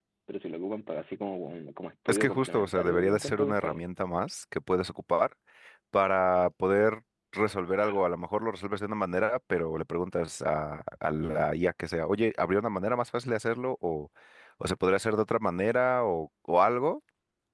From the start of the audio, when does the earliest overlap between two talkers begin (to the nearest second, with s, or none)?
2 s